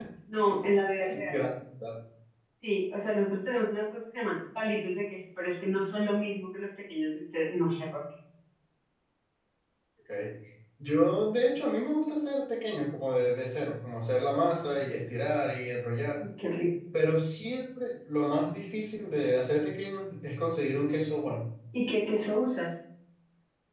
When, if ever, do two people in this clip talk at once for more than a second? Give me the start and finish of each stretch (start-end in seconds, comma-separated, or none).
none